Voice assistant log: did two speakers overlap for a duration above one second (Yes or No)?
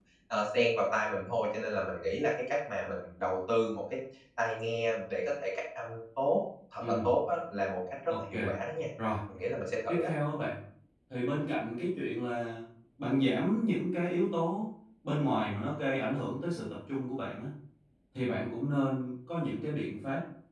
No